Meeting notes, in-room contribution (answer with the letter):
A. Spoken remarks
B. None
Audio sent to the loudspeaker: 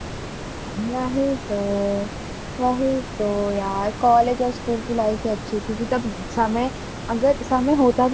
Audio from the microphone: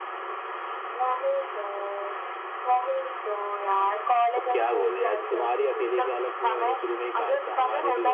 A